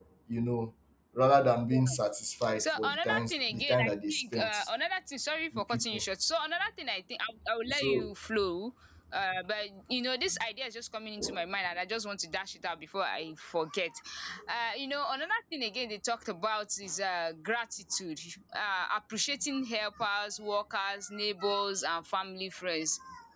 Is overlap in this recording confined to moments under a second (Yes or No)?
No